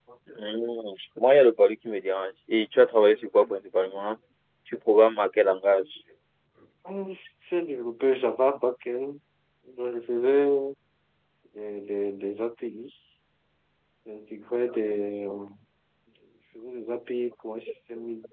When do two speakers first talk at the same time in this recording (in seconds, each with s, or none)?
none